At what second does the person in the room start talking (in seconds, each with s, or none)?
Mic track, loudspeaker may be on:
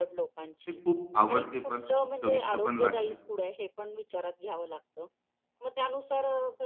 0.7 s